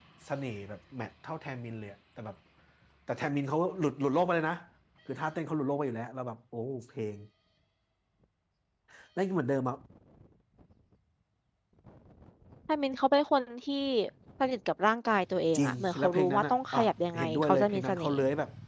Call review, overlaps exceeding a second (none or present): present